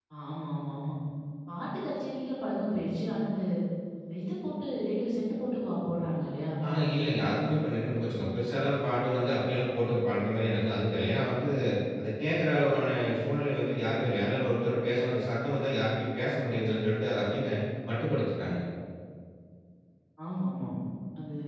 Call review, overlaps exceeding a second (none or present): none